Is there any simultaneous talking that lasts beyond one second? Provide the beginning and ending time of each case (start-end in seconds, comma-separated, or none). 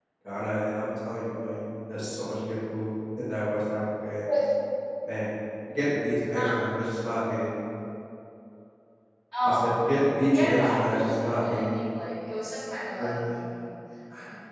10.3-11.8